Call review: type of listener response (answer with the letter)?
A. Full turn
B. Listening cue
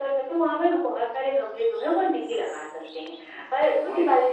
B